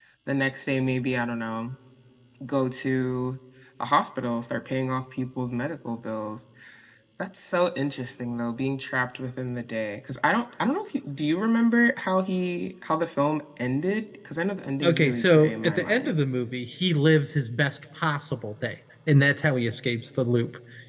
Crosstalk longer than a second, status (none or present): present